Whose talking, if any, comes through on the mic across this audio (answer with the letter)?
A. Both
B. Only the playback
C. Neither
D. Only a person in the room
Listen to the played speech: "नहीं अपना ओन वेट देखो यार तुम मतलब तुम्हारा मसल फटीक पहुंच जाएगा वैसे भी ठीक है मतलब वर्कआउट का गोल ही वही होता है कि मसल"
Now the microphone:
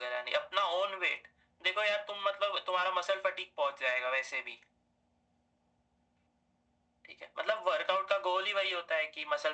B